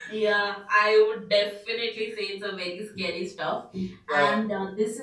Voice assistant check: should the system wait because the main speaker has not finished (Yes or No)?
Yes